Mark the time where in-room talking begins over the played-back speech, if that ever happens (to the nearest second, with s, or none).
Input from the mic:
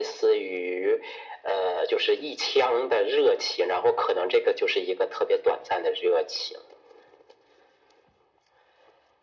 none